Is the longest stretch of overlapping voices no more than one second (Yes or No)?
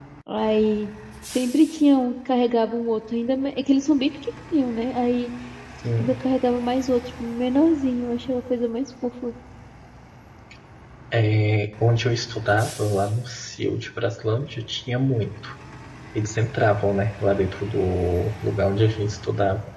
Yes